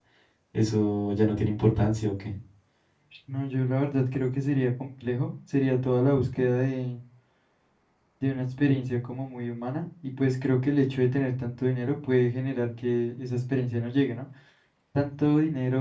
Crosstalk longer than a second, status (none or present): none